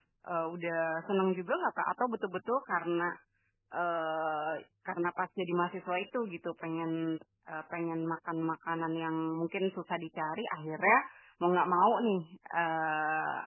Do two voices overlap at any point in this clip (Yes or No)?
No